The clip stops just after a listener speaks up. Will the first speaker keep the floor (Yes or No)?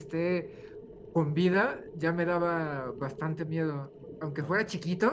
Yes